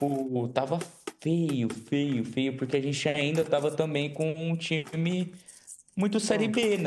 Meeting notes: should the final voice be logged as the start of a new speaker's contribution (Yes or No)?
No